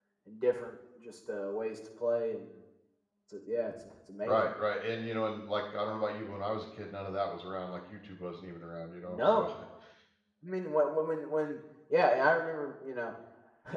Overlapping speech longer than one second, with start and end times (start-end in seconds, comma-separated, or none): none